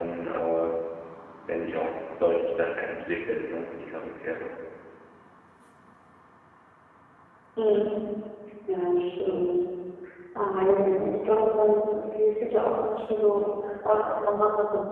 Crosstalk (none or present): none